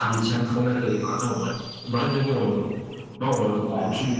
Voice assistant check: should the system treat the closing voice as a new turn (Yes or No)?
No